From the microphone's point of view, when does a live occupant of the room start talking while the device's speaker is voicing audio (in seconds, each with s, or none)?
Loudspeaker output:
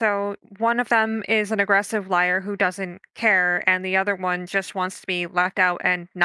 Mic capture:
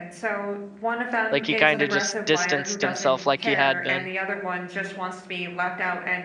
1.3 s